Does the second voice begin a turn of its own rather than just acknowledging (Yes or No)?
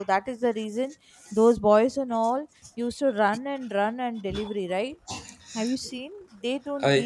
No